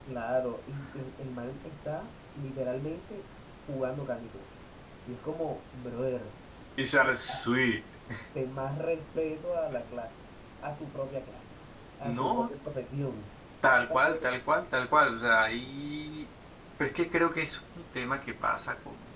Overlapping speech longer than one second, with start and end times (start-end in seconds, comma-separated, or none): none